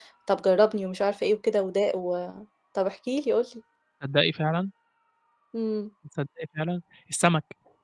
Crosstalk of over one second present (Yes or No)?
No